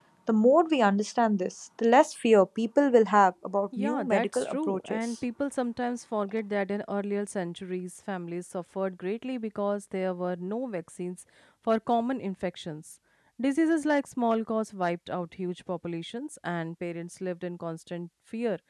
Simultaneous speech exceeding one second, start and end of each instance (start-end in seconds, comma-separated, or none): 3.8-5.1